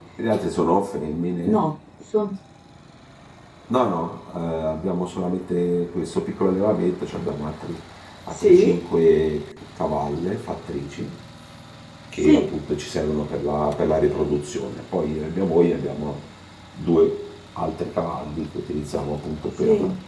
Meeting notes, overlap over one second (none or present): none